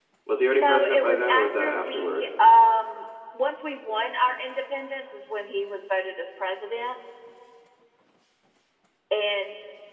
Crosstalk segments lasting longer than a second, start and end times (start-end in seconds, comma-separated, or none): 0.5-2.3